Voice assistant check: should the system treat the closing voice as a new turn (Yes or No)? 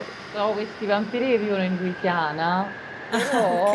No